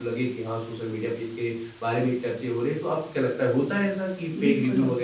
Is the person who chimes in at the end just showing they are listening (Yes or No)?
No